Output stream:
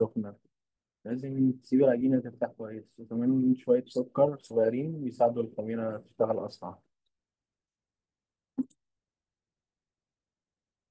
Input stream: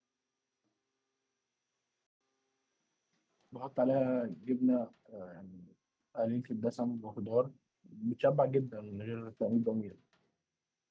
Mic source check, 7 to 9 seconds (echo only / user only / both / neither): user only